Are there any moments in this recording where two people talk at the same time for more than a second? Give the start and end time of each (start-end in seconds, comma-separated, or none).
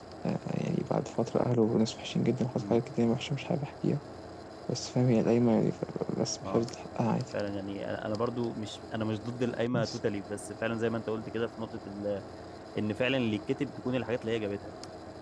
none